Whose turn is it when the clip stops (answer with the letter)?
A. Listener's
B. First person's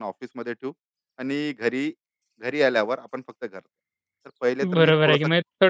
A